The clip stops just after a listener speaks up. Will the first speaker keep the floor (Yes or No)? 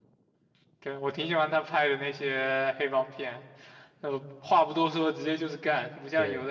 Yes